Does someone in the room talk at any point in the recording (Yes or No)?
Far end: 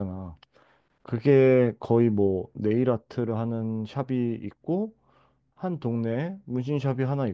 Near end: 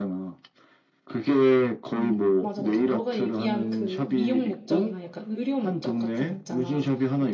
Yes